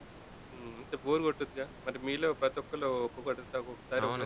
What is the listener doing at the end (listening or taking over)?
taking over